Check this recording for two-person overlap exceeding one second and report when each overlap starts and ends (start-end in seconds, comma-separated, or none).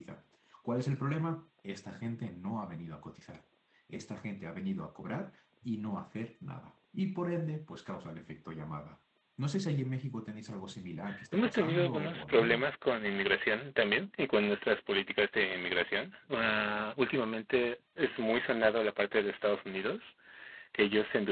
11.3-12.7